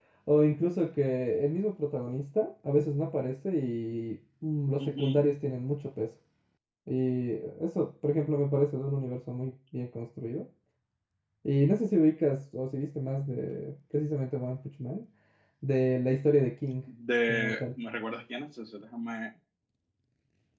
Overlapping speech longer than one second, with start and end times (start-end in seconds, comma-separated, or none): none